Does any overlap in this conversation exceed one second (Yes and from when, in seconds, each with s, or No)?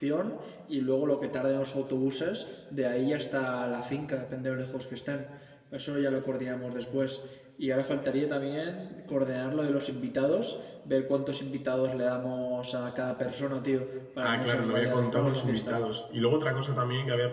Yes, from 14.2 s